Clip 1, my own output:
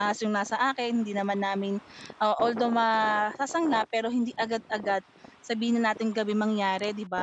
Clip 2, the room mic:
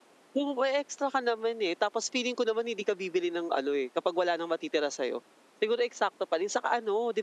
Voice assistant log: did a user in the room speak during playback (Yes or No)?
Yes